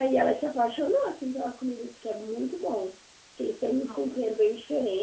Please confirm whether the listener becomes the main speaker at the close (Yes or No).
No